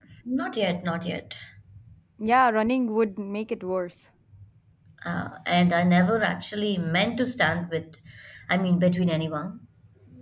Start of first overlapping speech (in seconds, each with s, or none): none